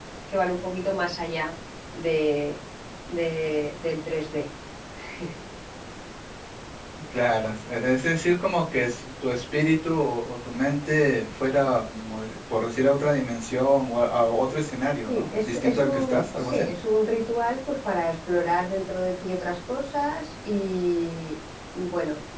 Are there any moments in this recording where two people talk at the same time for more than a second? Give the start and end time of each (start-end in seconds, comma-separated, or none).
15.1-16.6